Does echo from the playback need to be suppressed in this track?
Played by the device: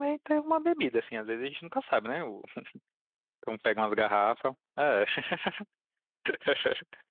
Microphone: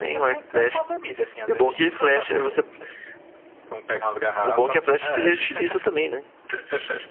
Yes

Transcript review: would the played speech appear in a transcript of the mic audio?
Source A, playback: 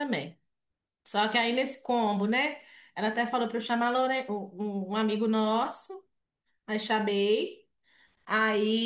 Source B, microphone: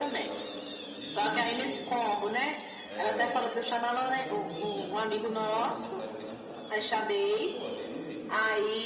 Yes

